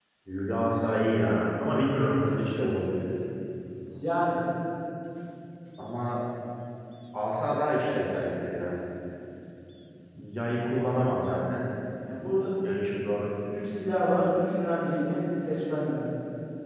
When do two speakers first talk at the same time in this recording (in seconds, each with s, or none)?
none